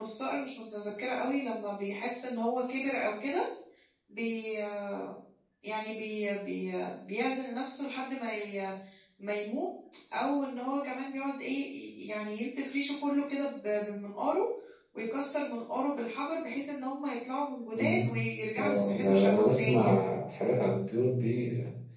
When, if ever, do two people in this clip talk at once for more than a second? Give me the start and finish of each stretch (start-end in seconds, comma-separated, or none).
18.6-20.0